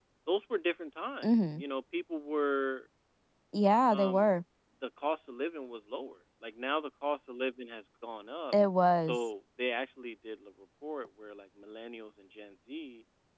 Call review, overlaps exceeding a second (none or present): none